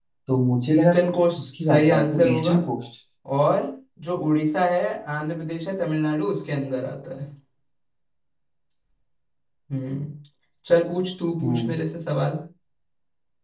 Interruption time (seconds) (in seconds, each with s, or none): 0.8 s